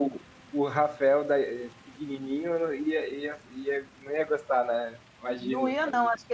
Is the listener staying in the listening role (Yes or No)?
No